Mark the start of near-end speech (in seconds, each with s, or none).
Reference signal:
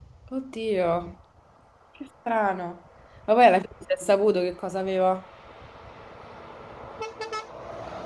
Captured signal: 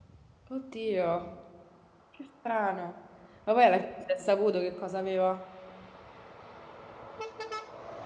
none